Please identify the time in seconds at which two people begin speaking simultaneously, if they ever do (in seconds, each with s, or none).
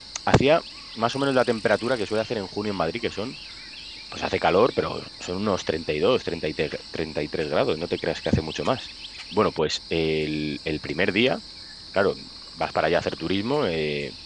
none